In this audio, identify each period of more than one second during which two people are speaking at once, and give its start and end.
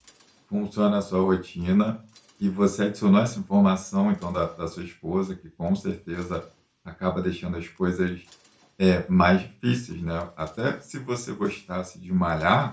none

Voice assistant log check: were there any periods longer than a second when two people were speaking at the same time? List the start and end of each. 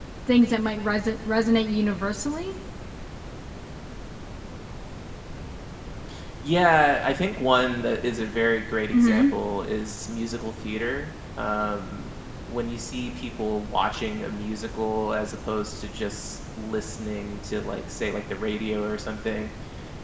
none

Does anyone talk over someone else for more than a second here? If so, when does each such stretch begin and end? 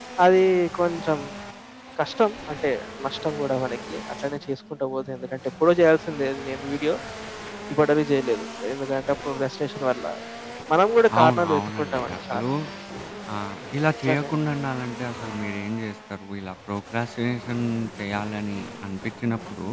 11.2-12.4

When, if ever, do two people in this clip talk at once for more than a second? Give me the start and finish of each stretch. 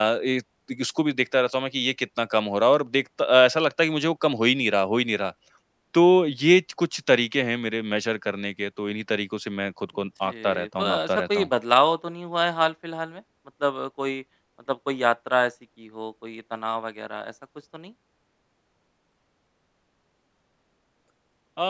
10.0-11.5

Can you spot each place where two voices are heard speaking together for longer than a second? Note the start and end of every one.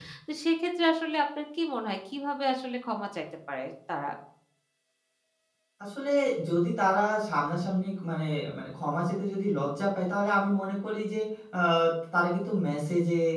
none

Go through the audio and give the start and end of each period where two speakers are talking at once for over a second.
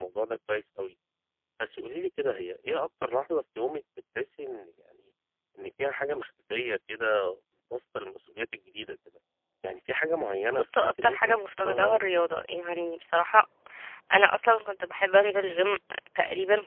10.5-12.0

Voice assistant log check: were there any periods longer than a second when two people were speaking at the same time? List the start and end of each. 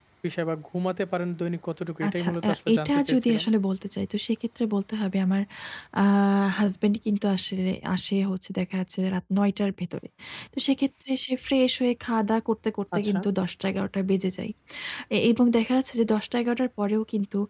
2.1-3.5

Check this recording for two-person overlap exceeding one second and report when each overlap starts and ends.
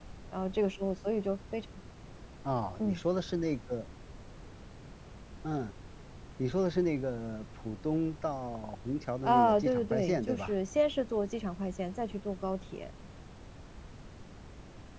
9.2-10.5

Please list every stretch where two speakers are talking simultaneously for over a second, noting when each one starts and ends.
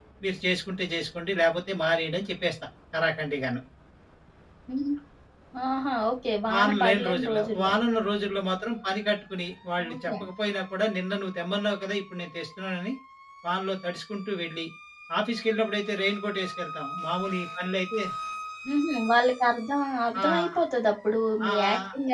6.5-7.8

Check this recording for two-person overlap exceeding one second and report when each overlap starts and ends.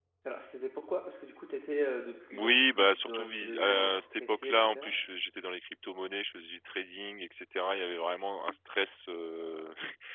2.3-4.9

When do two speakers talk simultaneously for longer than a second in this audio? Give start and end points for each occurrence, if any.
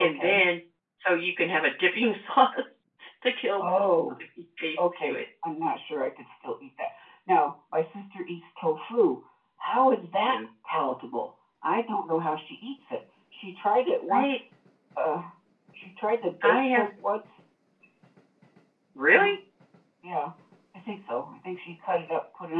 none

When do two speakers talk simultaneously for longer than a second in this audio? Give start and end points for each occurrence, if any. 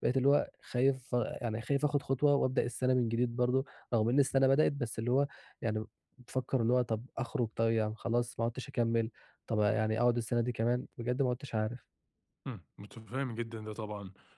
none

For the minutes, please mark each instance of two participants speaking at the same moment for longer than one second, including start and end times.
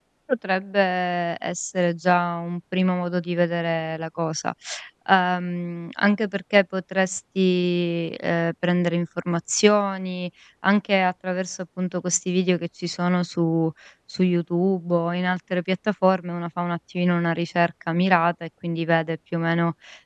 none

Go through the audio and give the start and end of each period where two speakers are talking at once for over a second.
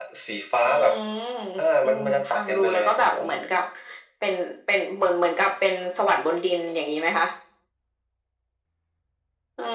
1.8-3.3

